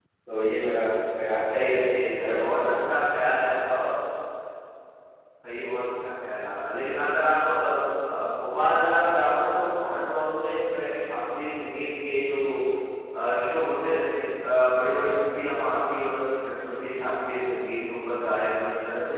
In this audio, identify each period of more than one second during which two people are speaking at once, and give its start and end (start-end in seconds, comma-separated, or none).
1.5-2.7